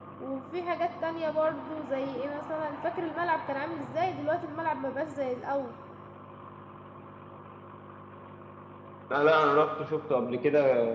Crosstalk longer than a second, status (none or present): none